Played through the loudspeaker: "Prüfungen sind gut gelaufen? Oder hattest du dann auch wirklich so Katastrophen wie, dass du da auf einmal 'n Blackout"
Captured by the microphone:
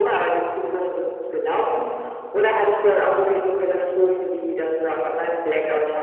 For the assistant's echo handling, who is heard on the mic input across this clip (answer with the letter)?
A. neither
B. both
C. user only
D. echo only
D